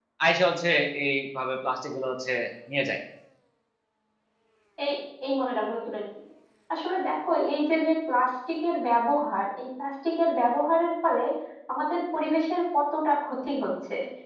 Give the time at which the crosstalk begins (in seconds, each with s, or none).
none